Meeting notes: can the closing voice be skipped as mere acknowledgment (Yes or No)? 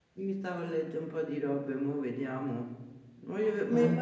Yes